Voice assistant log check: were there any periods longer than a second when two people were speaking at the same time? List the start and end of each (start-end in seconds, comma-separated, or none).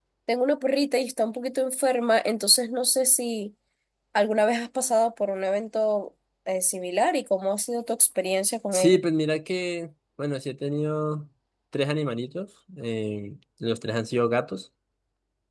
none